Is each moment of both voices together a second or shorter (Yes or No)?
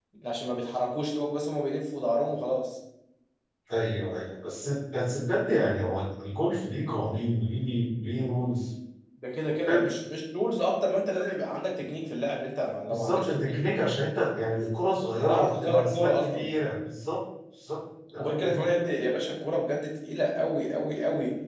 No